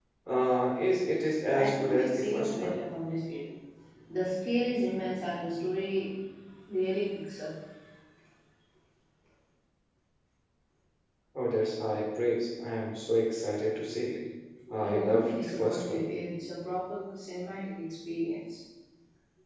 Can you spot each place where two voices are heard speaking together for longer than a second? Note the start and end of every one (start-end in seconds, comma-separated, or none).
1.5-2.8, 14.8-16.0